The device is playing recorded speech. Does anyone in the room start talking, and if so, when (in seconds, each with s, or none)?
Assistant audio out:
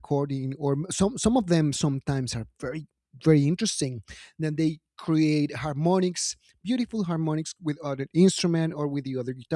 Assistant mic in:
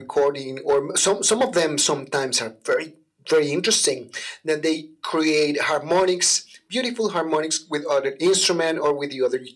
none